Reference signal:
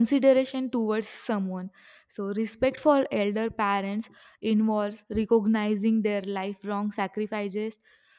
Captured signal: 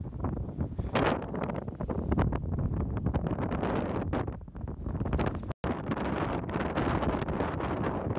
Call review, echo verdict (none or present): none